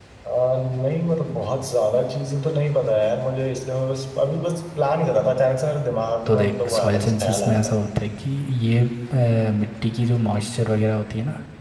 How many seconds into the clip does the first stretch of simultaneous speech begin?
6 s

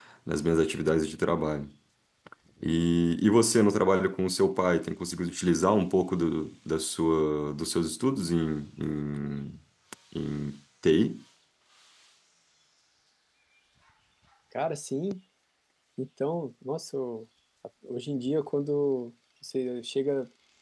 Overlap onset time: none

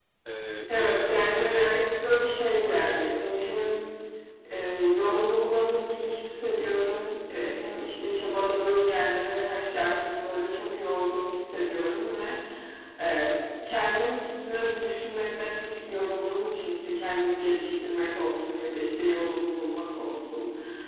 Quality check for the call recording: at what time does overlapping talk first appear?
1 s

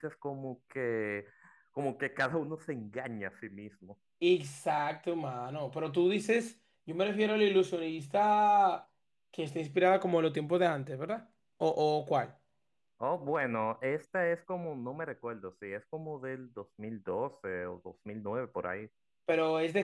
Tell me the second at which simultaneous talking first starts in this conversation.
none

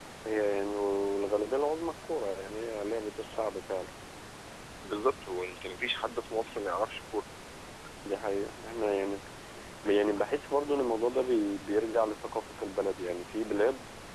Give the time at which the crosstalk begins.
none

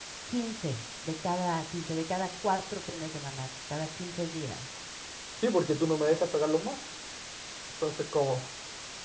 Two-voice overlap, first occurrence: none

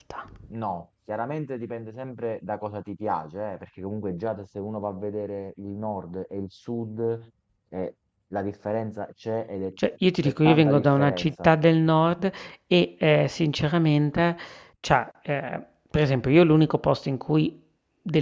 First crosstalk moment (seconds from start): 10 s

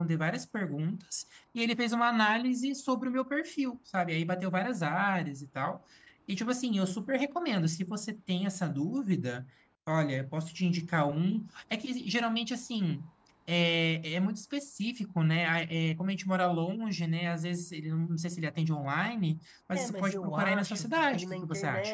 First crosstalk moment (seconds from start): 20 s

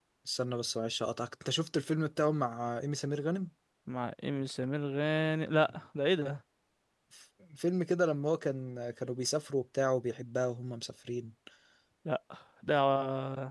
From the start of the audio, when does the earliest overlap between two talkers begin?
none

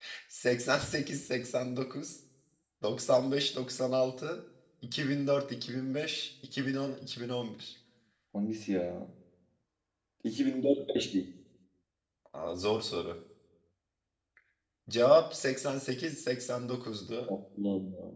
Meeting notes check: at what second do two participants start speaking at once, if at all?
none

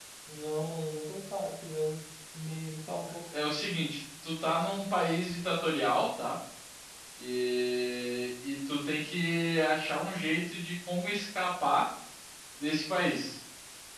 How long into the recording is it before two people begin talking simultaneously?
none

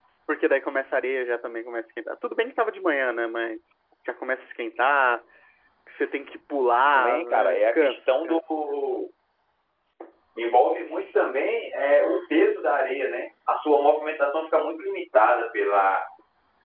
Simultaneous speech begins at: 7 s

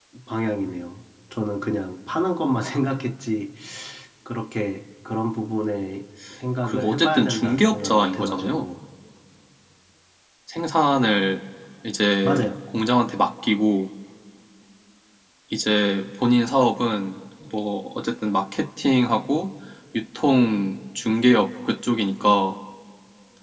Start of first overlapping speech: 7 s

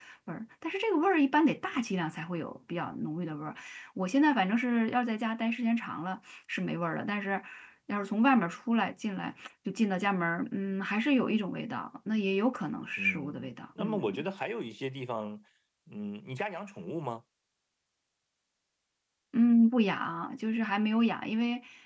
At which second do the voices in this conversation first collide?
13 s

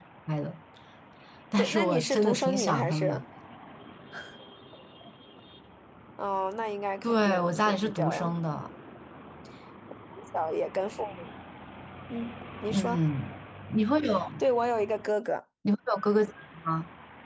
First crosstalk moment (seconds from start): 2 s

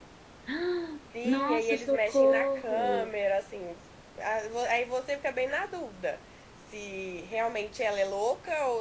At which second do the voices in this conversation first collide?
1 s

